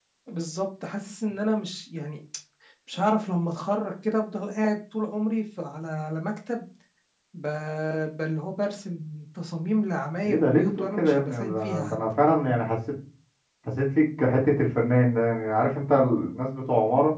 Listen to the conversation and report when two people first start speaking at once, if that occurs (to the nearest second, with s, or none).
10 s